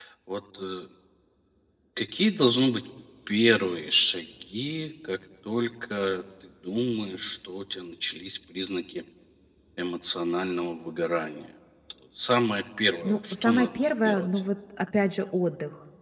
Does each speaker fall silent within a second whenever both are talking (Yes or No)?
No